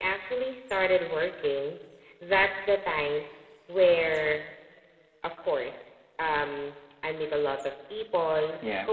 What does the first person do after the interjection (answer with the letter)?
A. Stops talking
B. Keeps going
B